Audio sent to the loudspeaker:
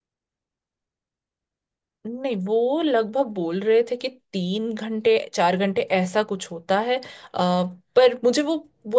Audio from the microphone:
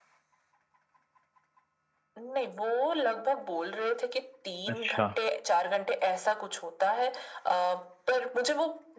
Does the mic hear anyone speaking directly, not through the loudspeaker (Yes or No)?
Yes